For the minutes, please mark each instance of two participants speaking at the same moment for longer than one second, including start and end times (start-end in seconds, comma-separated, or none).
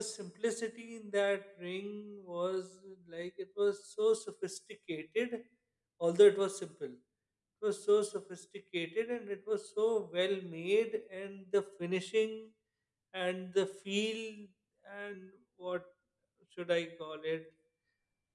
none